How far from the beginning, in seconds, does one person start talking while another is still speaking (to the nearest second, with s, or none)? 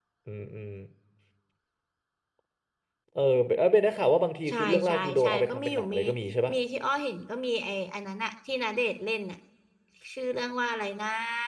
4 s